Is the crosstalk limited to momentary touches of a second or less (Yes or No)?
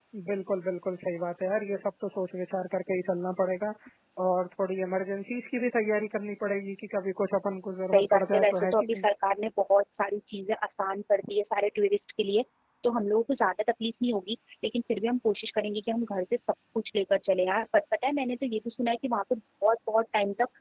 No